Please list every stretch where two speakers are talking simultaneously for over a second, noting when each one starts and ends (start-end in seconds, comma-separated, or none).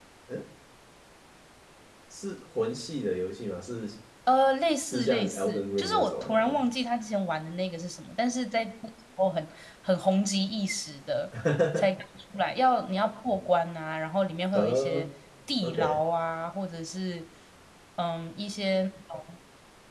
4.8-6.6